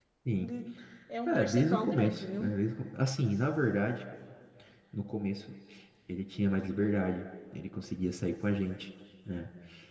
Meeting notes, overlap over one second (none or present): present